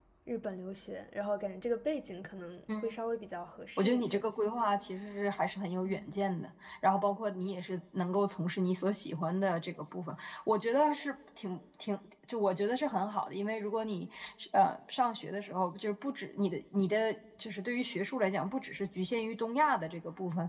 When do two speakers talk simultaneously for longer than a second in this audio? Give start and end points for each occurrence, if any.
none

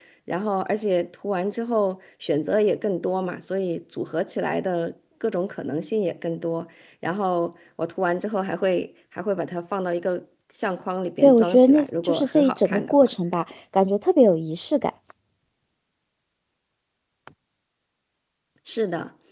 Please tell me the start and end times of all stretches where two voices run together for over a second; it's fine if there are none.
11.2-13.1

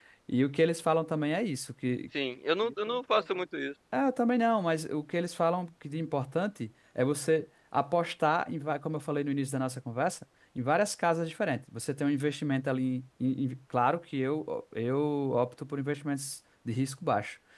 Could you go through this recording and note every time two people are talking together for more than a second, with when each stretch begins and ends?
none

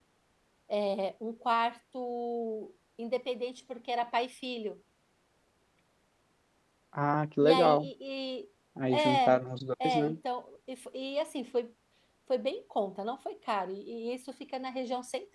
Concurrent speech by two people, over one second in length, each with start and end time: none

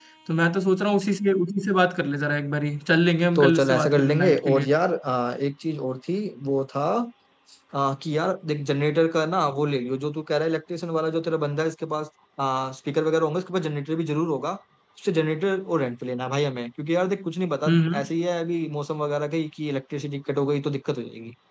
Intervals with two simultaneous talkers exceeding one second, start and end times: 3.4-4.7

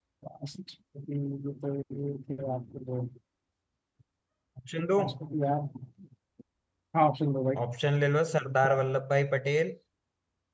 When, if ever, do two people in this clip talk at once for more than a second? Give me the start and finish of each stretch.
none

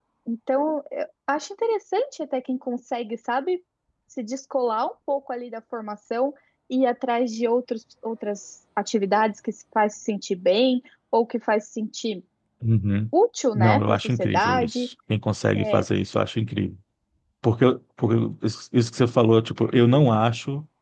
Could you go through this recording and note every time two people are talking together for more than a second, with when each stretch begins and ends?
13.6-14.9

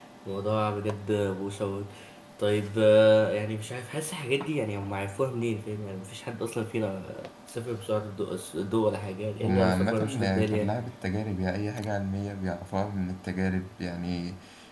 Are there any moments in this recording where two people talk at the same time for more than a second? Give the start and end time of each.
9.4-10.8

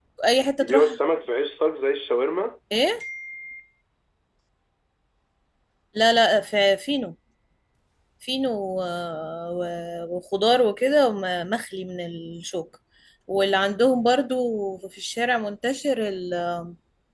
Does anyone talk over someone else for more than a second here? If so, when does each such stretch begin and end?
none

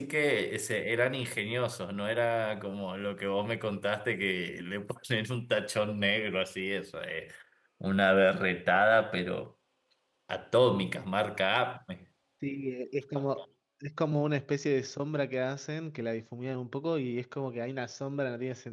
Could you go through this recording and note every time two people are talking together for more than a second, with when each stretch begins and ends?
none

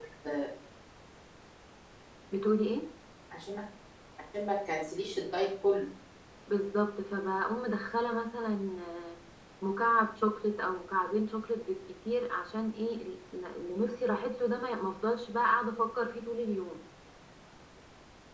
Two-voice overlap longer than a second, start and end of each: none

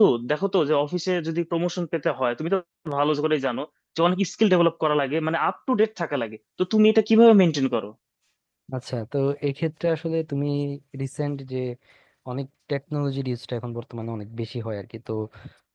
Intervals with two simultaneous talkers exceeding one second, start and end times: none

